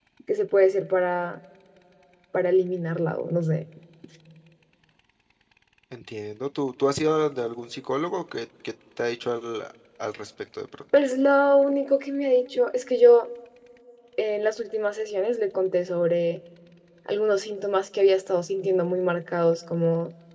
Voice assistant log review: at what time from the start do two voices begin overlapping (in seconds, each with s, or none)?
none